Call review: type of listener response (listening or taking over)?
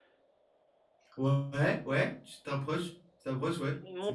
taking over